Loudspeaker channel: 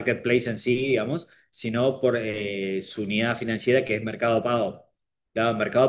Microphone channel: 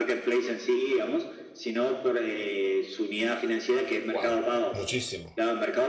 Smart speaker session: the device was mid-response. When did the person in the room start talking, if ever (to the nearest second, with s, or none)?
4 s